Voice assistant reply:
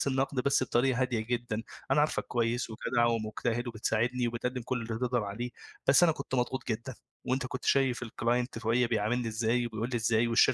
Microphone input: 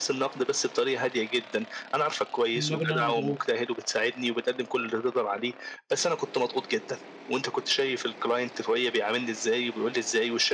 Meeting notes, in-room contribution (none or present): present